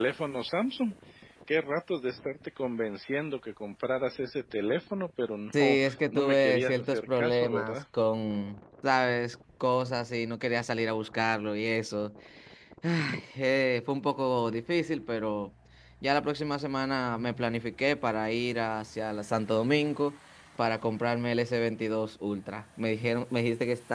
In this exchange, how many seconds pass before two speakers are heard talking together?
5.5 s

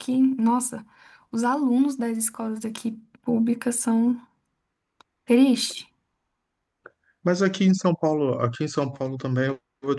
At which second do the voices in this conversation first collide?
none

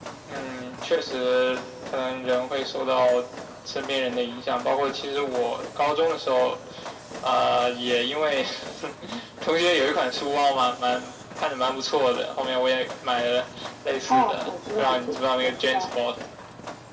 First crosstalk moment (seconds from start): 14.1 s

